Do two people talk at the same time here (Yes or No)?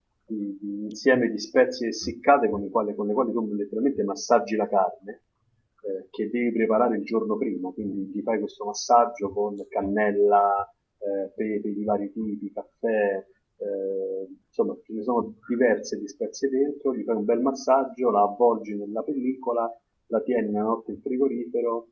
No